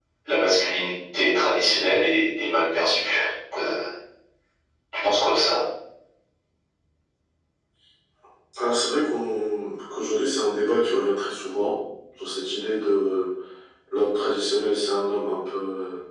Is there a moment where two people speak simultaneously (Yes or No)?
No